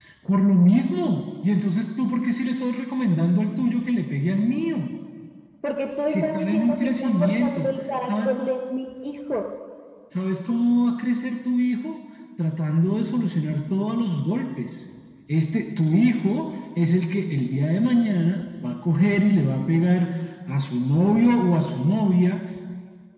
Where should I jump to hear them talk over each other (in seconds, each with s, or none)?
6.1 s